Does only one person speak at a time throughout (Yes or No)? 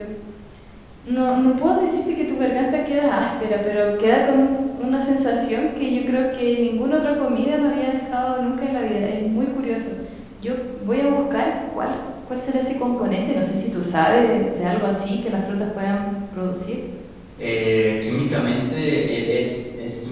Yes